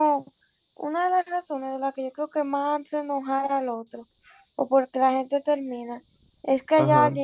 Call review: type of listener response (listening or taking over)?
listening